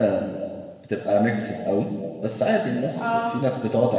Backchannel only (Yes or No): Yes